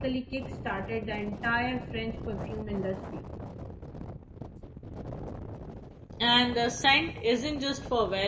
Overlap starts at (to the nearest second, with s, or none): none